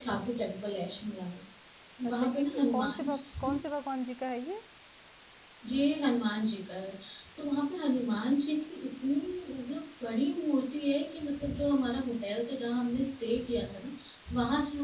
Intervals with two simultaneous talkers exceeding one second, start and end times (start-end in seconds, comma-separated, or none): 2.1-3.5